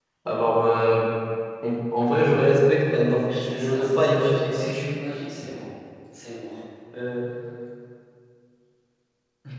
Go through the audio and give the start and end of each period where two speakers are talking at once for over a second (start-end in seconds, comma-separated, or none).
3.4-4.7